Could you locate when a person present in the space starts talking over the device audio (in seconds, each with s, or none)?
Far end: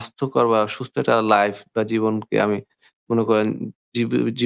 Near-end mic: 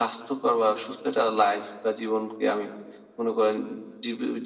none